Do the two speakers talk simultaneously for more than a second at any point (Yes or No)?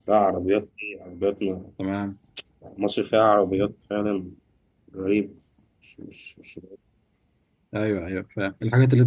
No